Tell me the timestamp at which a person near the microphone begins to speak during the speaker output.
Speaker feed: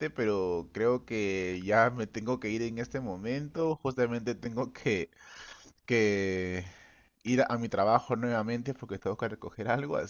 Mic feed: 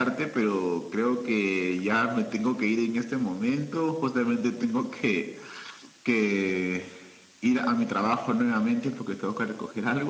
none

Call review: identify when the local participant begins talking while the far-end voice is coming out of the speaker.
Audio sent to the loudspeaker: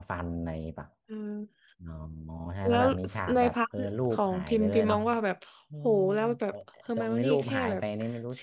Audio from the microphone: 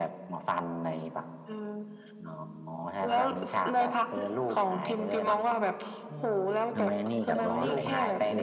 6.7 s

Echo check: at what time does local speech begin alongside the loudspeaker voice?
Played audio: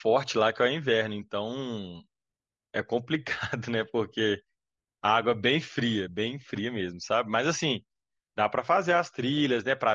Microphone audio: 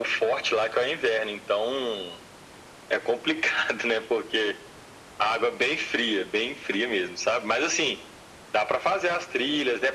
none

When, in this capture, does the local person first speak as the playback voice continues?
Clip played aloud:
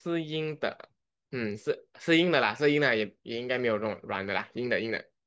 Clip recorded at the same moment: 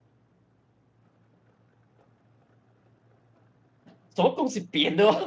4.2 s

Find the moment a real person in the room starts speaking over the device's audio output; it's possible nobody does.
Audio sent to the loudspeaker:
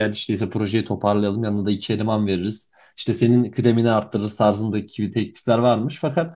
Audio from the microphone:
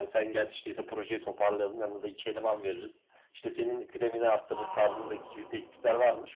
4.4 s

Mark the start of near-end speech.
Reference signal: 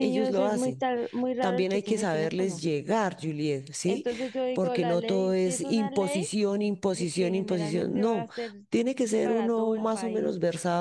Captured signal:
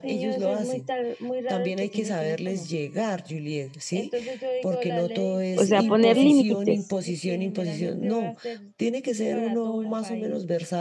5.5 s

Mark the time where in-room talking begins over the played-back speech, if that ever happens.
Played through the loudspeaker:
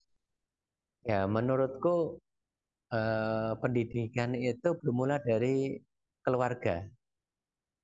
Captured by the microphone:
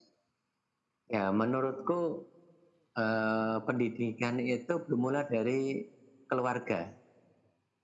none

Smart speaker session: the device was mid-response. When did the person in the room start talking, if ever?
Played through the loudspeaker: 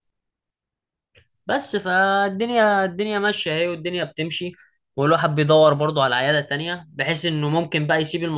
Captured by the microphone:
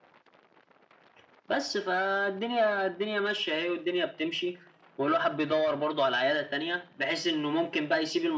none

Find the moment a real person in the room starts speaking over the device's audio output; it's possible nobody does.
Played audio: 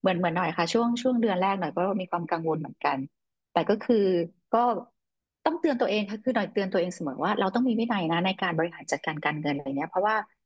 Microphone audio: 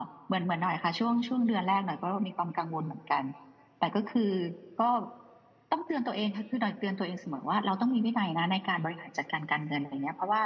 none

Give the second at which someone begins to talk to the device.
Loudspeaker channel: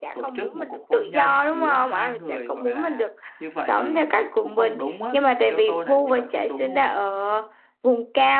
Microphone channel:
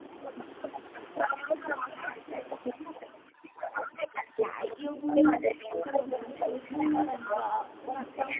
4.3 s

